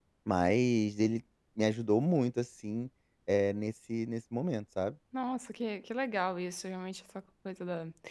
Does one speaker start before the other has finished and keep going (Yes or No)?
No